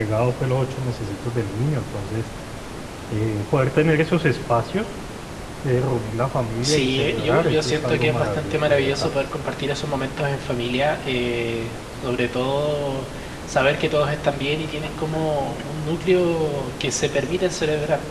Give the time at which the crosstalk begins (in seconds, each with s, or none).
6.6 s